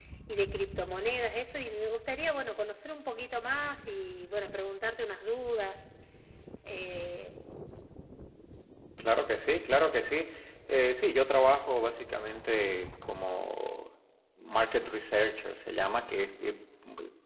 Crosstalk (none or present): none